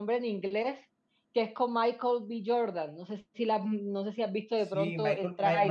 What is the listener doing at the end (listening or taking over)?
taking over